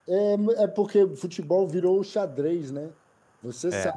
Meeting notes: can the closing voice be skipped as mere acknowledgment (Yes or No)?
Yes